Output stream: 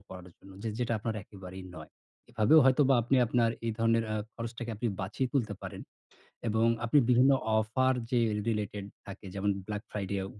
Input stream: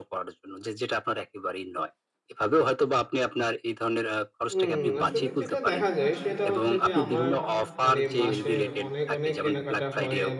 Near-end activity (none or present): present